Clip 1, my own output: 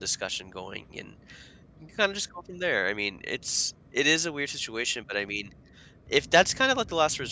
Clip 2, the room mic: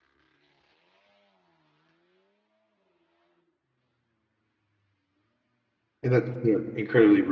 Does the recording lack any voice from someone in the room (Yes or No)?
No